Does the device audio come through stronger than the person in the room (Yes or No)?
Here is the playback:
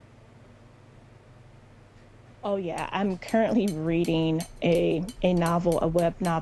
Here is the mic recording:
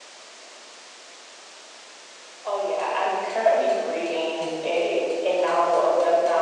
Yes